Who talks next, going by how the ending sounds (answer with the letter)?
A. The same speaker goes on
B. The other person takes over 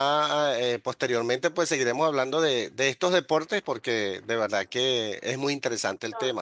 B